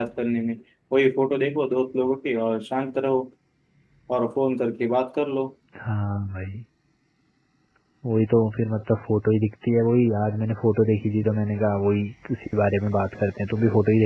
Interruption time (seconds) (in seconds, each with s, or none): none